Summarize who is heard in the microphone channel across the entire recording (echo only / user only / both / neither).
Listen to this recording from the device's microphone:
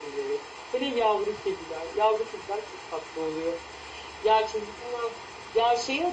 echo only